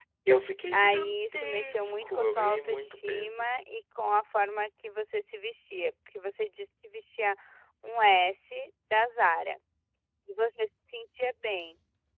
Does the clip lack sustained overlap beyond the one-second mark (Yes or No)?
No